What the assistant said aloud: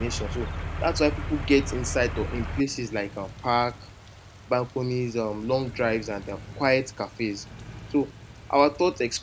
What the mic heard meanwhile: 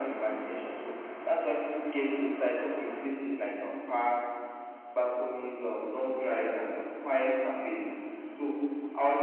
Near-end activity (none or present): none